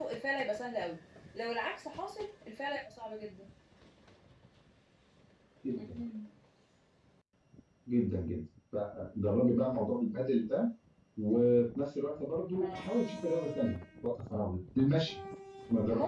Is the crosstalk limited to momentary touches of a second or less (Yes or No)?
Yes